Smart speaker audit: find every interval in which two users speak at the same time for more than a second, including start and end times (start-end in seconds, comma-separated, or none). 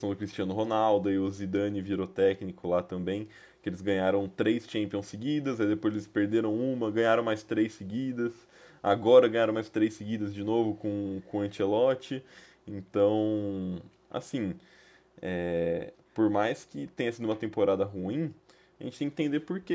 none